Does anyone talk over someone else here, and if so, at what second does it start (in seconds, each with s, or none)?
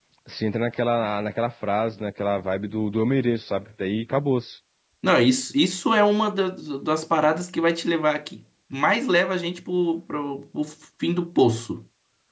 none